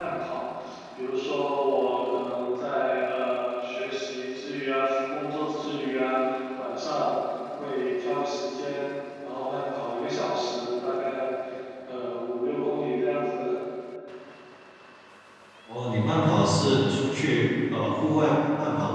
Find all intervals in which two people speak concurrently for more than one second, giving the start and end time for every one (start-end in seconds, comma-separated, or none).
none